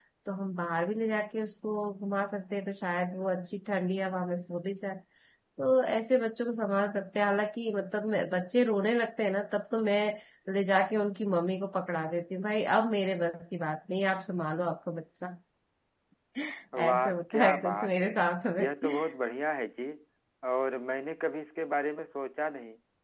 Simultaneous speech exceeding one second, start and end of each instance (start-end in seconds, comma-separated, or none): 16.8-18.1